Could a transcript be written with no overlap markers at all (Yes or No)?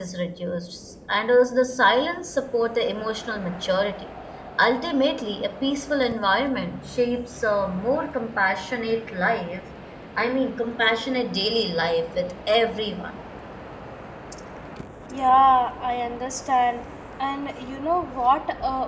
Yes